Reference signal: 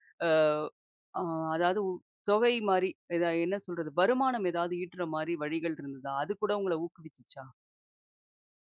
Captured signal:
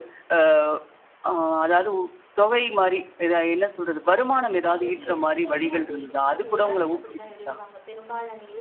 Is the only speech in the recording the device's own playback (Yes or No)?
No